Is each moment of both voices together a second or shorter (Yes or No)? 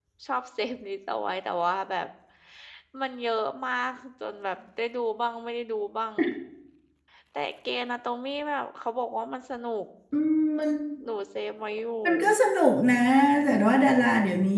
Yes